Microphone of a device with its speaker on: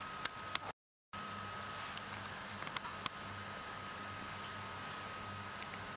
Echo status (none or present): none